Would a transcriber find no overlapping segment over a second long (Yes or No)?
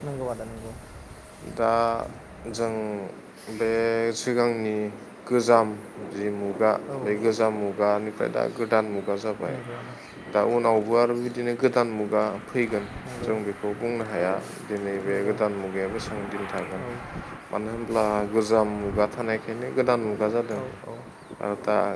Yes